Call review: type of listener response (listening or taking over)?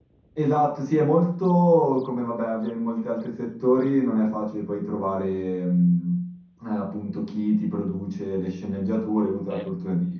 listening